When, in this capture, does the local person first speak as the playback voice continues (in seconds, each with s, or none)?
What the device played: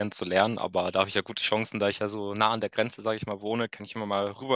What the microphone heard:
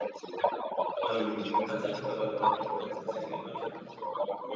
1.1 s